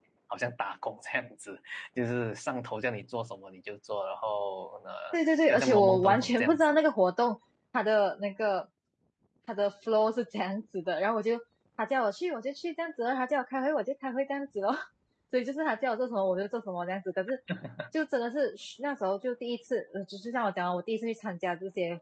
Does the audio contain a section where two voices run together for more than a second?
Yes, from 5.5 s

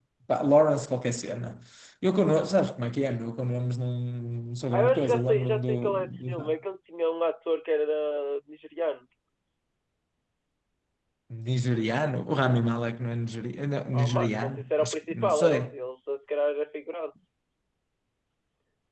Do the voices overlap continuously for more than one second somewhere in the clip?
Yes, from 4.7 s

